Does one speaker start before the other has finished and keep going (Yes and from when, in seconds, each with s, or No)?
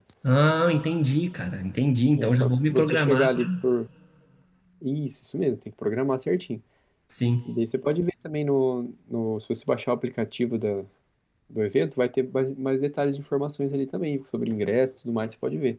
Yes, from 2.2 s